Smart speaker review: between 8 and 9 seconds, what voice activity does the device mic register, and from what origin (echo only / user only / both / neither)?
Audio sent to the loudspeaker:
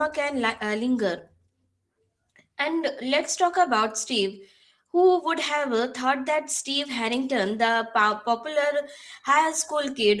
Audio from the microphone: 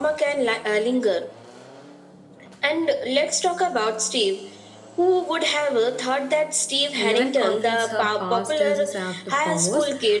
both